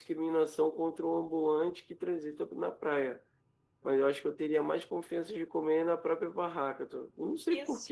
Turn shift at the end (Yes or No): Yes